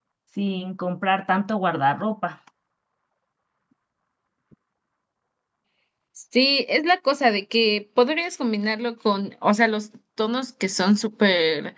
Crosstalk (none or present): none